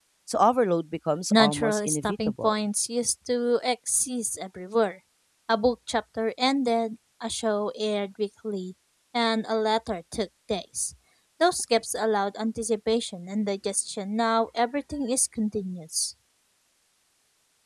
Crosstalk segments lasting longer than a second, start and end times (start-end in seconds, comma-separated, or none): 1.3-2.6